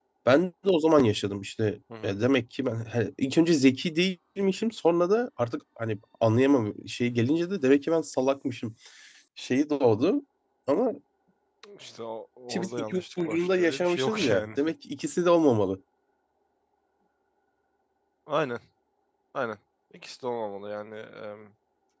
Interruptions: present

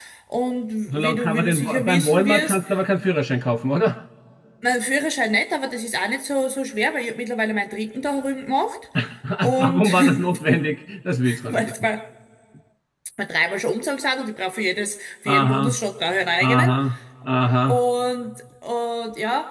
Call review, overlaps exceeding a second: present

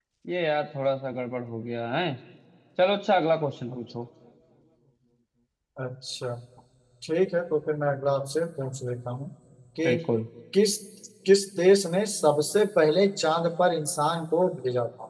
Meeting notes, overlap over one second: none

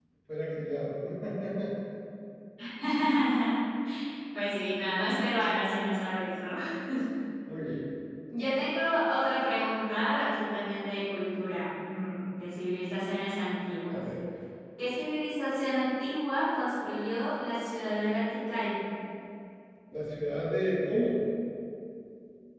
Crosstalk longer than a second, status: none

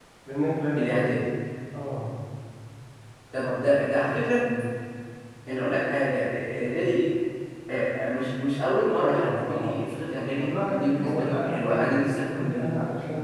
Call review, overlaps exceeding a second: present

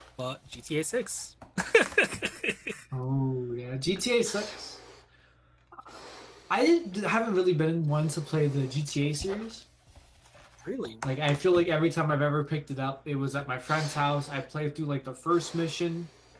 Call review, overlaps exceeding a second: none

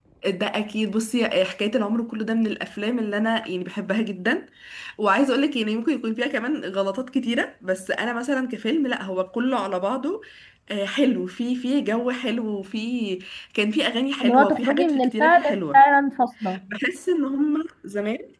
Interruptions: present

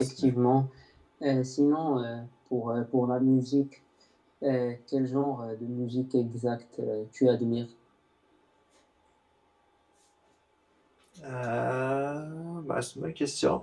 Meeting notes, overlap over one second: none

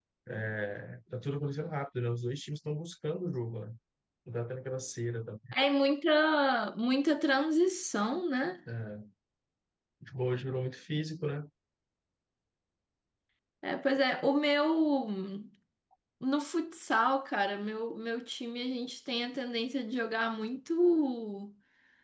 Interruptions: none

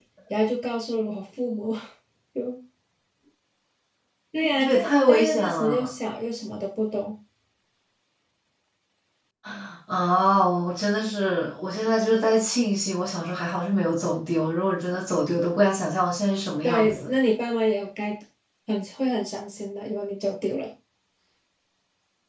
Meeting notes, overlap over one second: present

